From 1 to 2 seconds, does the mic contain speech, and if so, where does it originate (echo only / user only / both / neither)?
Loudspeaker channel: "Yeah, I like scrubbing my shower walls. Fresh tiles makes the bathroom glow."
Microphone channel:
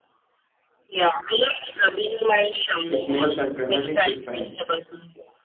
echo only